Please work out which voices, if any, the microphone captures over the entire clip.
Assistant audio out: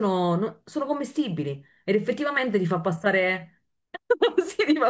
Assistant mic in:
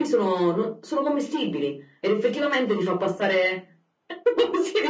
echo only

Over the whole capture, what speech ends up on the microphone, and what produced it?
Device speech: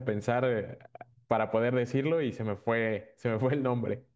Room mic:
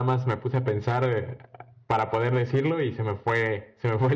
echo only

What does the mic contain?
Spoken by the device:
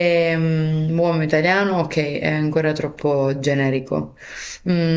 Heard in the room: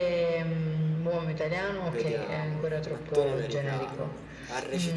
both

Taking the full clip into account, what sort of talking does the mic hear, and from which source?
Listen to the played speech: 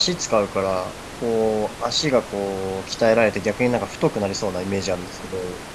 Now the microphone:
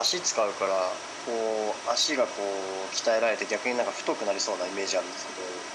echo only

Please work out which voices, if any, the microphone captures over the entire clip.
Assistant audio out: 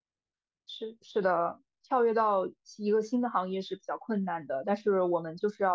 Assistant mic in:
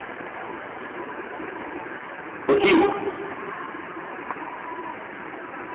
user only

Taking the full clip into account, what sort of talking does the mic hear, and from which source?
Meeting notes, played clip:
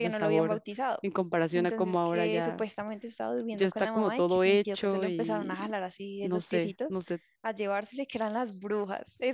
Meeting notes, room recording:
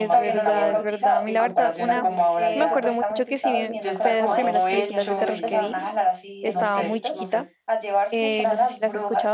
both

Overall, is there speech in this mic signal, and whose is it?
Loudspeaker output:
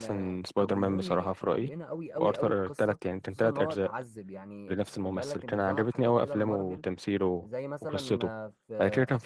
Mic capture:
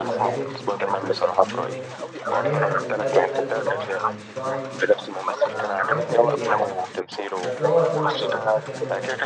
both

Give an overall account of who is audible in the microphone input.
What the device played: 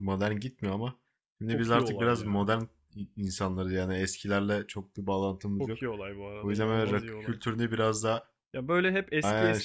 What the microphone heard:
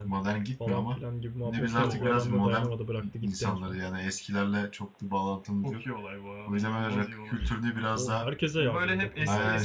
both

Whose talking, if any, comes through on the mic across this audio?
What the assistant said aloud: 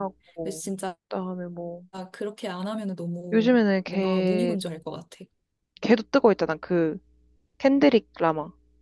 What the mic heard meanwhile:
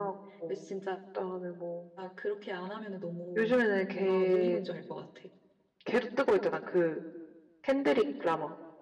echo only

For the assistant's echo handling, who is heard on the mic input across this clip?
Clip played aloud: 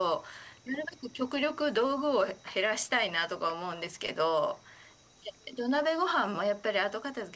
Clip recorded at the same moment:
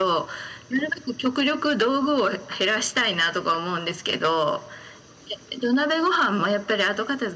echo only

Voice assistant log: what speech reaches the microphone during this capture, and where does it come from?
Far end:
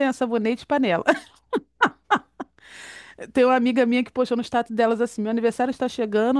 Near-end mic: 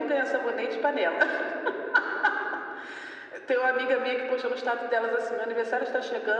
echo only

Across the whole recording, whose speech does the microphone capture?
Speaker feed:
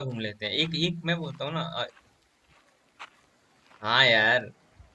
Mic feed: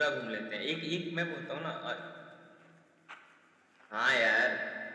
echo only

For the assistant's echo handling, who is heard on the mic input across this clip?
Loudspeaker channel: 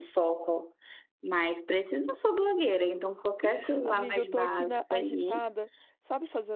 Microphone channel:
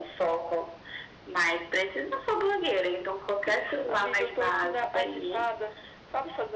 echo only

